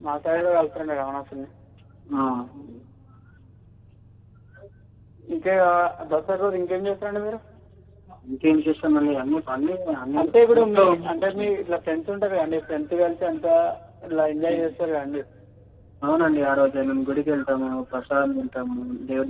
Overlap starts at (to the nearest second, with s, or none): 10 s